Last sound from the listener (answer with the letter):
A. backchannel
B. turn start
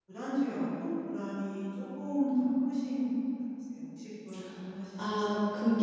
B